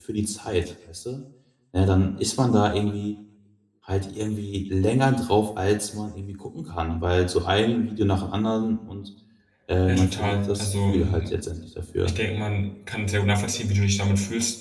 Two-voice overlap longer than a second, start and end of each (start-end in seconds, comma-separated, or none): 9.9-11.3